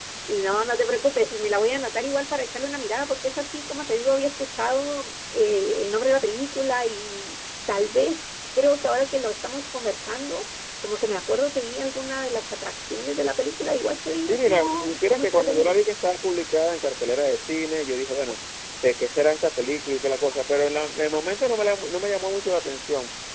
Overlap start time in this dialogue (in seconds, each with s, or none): 14.2 s